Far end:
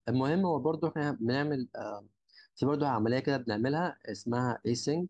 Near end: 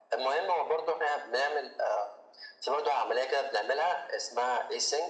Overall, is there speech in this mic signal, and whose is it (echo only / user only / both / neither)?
echo only